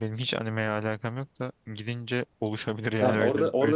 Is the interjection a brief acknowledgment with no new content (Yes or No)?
No